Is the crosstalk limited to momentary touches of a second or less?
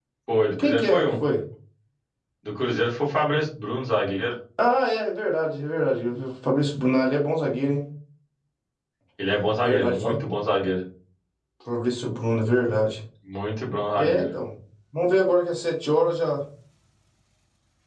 Yes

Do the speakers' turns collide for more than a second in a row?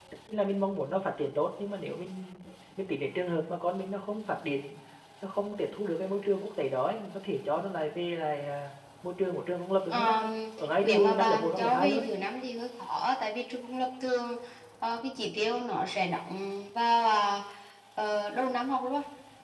Yes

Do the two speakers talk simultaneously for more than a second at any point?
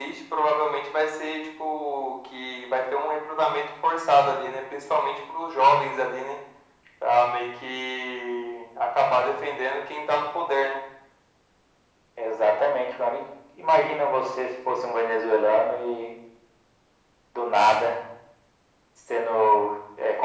No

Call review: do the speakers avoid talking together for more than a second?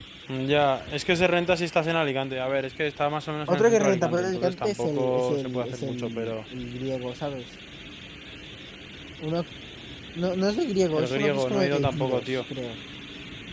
No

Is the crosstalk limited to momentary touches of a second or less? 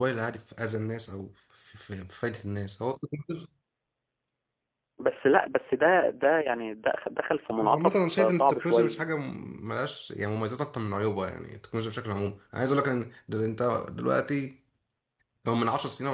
No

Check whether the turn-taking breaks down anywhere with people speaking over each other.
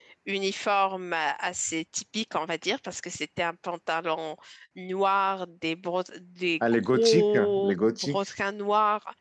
Yes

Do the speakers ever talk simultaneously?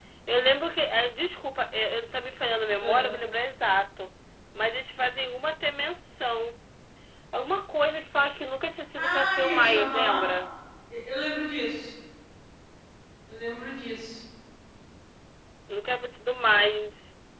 Yes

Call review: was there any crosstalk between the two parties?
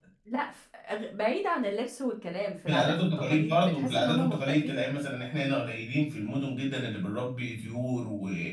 Yes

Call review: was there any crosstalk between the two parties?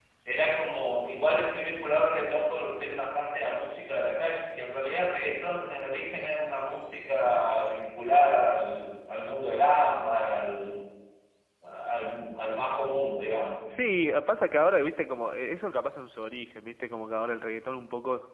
No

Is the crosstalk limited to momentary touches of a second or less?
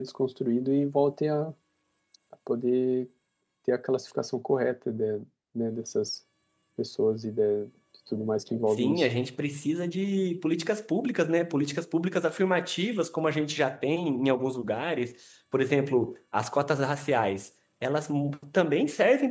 Yes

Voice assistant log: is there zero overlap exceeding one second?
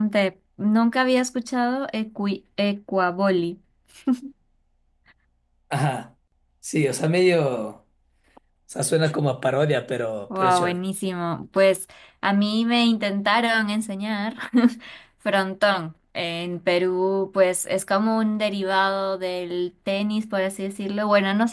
Yes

